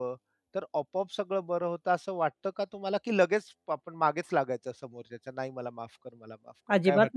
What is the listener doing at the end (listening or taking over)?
taking over